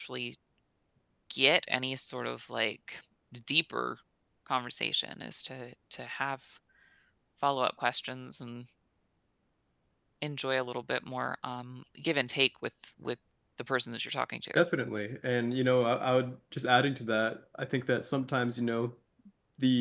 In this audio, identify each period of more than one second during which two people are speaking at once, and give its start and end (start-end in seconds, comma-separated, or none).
none